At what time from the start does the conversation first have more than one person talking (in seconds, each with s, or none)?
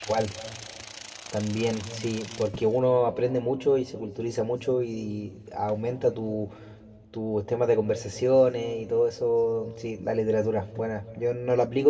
none